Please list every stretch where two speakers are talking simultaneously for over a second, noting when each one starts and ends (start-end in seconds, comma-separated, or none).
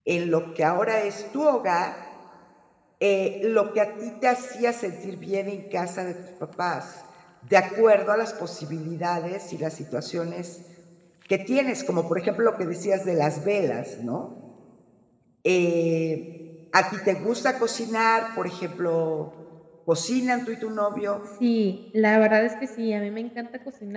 none